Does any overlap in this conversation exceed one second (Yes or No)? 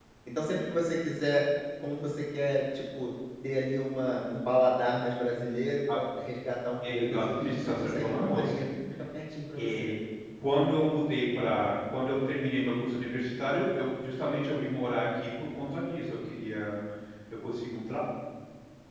Yes